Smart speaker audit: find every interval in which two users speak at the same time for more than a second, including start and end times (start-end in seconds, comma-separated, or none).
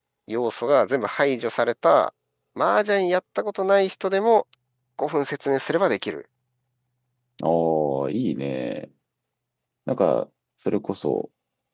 none